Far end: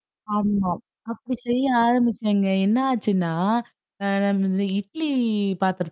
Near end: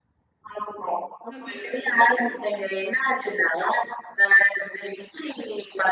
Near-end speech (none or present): present